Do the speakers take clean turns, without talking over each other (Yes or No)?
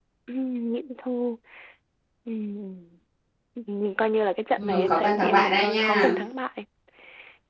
No